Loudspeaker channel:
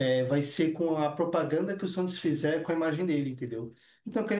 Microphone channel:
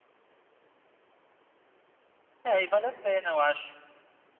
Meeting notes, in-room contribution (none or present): present